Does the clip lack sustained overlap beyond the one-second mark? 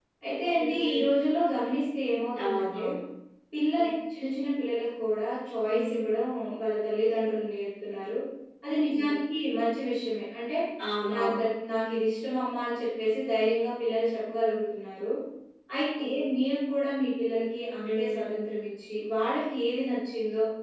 Yes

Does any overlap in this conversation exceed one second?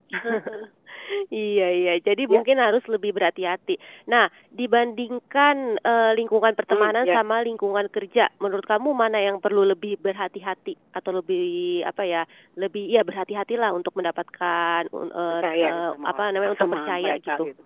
Yes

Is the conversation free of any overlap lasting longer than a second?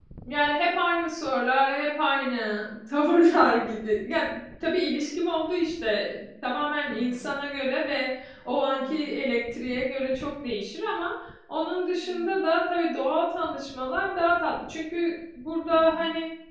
Yes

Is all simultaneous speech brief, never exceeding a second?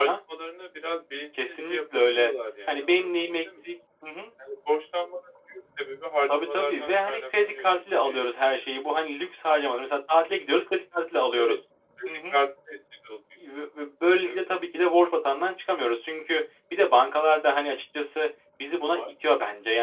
No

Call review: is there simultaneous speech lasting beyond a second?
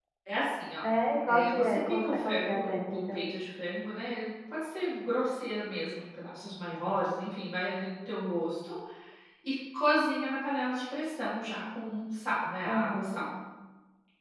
Yes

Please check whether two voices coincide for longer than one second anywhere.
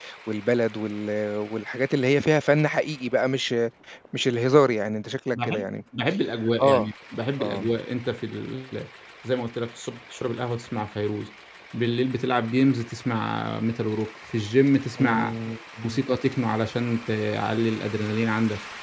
No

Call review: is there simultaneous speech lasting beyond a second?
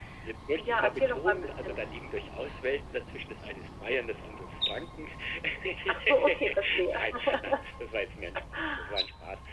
Yes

